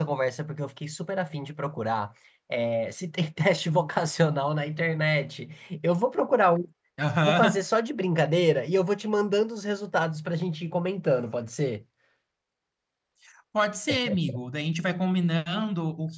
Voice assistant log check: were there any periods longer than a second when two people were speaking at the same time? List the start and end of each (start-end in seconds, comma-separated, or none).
none